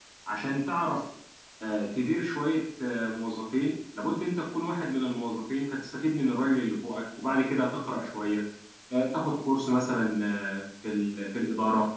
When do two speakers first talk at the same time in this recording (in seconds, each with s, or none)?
none